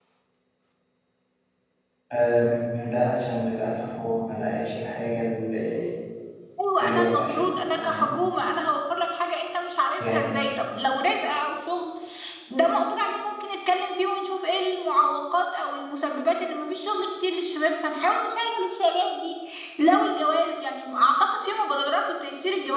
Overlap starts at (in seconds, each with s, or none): 6.8 s